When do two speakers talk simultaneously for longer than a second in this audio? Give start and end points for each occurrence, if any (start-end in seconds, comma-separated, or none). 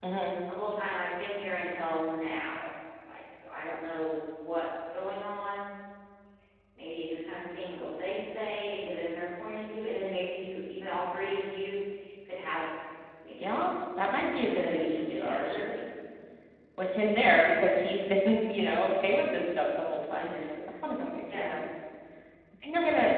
14.3-15.7